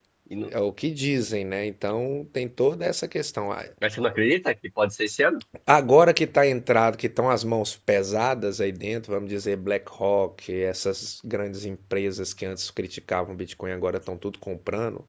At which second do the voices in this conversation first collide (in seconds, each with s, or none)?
none